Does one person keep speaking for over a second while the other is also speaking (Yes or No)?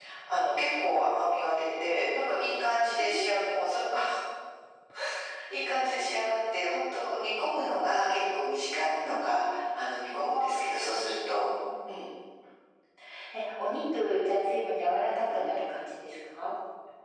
No